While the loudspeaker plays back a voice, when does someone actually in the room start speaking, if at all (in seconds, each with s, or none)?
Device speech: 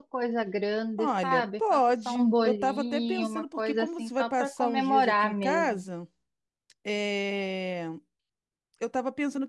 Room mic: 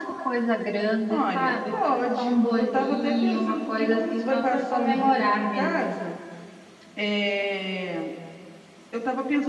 none